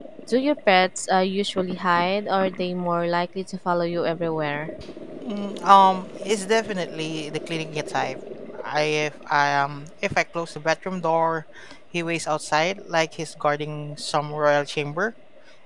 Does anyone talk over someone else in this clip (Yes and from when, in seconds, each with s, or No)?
No